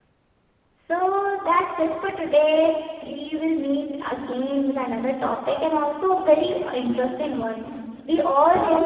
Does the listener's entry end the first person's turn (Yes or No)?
No